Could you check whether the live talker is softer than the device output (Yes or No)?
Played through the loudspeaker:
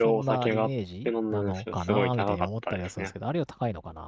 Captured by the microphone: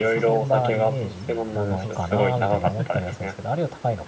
Yes